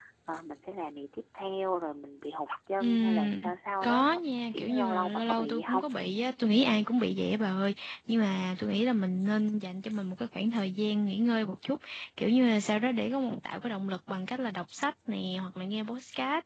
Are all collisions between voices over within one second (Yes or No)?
No